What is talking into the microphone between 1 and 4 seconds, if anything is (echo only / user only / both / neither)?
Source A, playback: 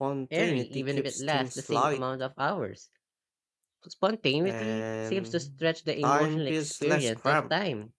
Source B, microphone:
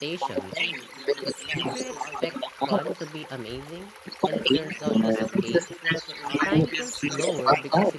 both